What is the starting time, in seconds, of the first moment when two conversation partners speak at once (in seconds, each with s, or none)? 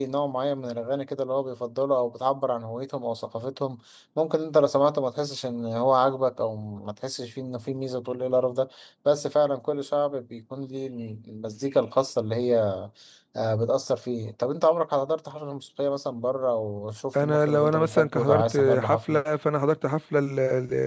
17.1 s